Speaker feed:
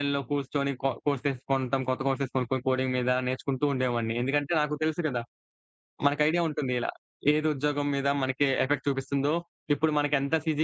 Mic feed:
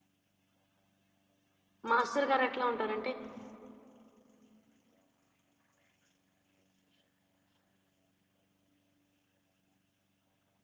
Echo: none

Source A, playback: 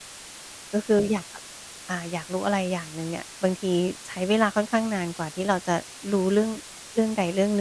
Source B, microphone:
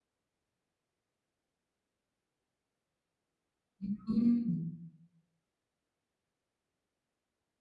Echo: none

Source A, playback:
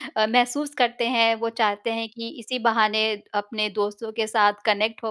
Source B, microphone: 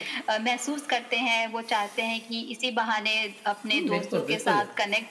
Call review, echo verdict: present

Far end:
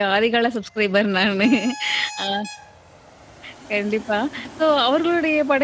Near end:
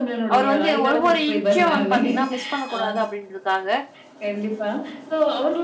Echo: present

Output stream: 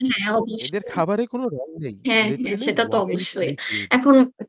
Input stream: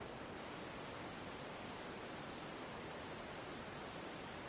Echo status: none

